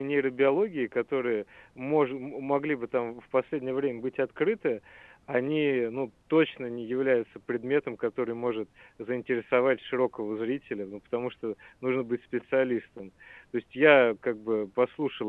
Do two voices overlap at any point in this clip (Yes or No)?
No